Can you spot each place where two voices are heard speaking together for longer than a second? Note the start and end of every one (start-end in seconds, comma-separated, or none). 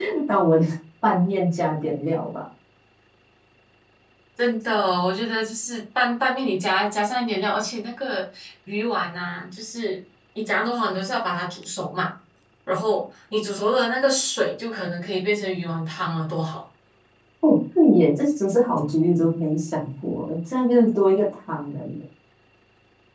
none